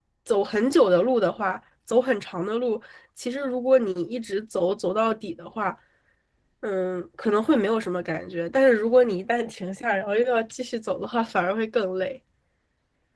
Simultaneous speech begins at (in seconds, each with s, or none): none